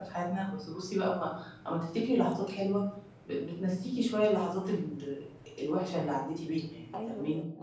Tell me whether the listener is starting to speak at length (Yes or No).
Yes